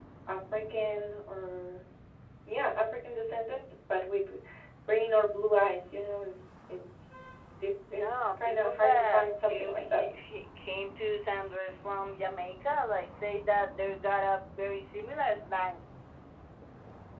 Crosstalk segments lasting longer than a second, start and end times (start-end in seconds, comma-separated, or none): 7.9-10.0